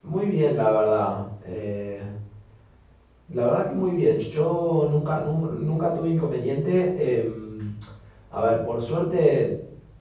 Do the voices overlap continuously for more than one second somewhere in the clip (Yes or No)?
No